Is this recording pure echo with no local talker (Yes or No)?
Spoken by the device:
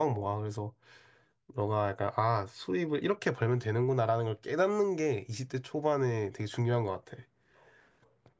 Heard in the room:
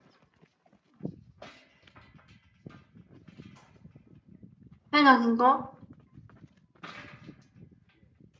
No